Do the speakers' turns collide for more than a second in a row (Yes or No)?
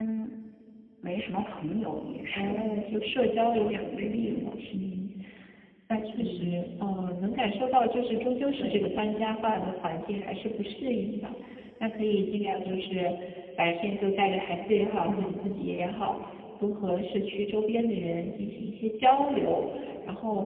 Yes